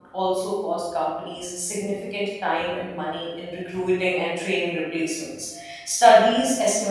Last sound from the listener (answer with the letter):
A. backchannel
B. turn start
A